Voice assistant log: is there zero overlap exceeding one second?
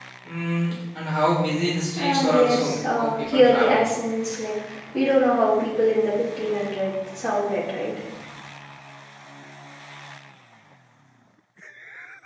No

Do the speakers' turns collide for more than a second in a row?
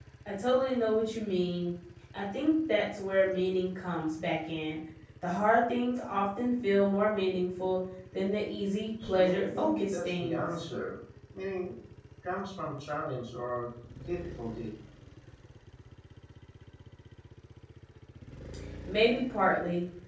Yes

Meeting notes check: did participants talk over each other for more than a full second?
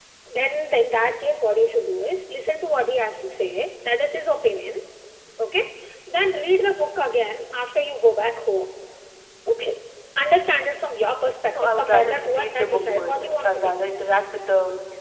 Yes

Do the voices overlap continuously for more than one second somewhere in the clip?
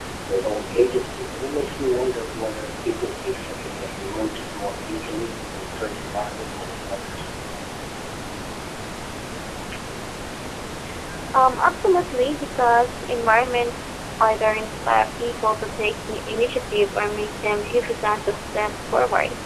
No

